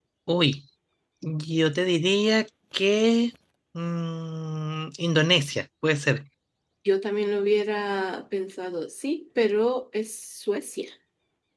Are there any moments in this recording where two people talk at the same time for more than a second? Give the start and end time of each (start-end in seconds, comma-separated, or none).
none